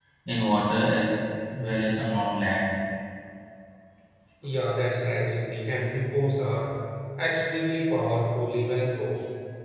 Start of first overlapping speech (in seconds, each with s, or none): none